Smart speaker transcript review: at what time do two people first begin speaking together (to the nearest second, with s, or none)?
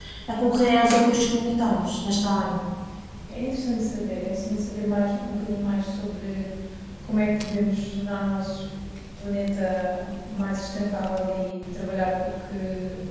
none